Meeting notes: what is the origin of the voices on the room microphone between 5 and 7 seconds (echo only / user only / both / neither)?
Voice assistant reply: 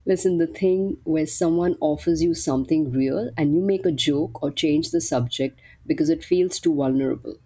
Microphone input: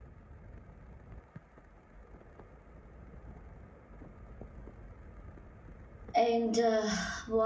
user only